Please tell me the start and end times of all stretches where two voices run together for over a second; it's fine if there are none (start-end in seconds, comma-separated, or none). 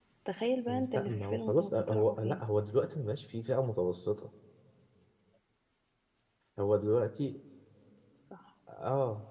0.9-2.4